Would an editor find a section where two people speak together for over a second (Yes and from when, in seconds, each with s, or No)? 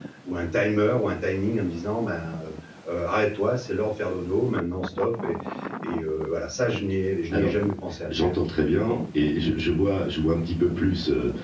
No